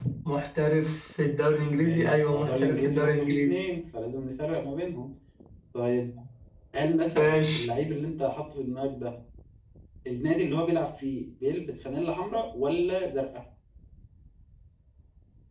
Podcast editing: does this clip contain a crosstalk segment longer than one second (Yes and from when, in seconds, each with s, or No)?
Yes, from 1.8 s